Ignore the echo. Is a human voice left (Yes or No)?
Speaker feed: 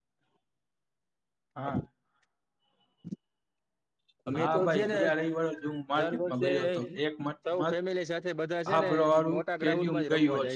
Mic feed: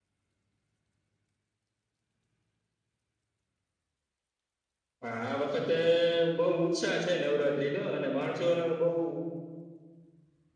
Yes